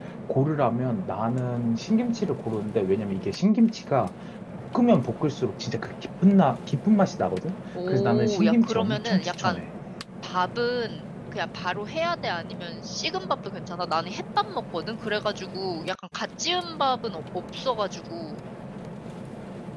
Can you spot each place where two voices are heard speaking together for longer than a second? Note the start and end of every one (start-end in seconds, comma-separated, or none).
7.9-9.6